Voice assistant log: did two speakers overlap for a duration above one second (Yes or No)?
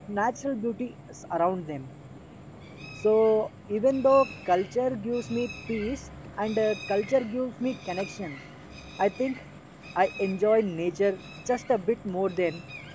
No